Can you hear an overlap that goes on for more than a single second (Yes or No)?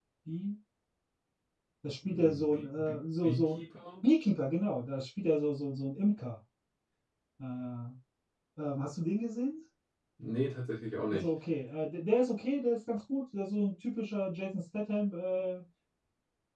Yes